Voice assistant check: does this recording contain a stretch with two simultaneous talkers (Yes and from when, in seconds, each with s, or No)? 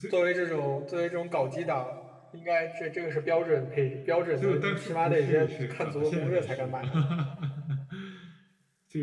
Yes, from 4.4 s